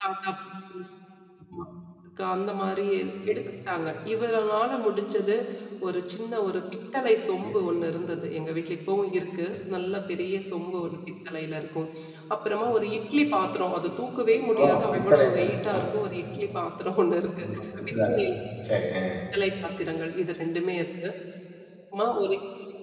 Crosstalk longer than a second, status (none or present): present